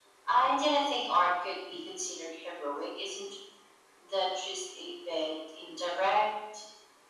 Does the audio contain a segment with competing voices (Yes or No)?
No